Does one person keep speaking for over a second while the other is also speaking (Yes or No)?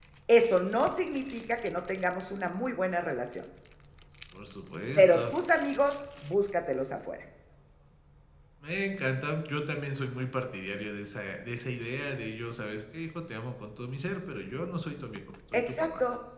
No